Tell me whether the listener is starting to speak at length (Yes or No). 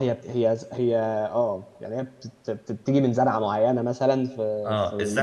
Yes